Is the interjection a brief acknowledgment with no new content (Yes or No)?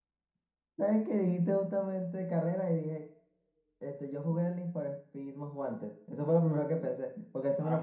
Yes